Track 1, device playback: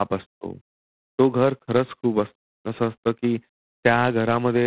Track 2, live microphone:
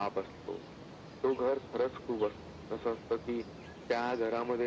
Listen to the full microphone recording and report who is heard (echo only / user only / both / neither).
echo only